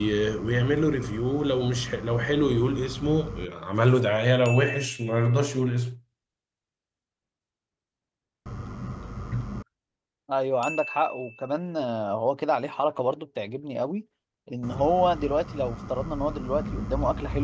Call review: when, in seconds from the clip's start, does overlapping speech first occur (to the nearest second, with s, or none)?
none